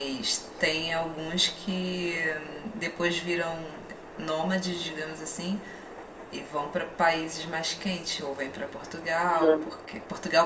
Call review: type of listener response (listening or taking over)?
listening